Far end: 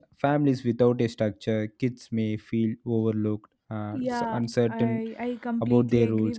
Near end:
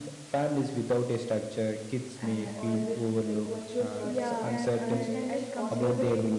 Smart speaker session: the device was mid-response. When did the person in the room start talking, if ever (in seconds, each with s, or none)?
2.2 s